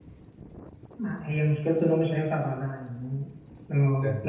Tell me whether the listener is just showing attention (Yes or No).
Yes